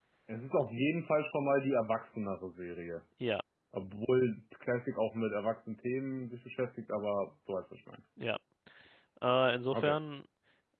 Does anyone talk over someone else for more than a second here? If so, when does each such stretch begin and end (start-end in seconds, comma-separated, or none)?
none